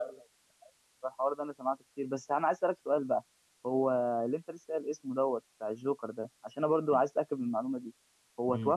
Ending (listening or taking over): listening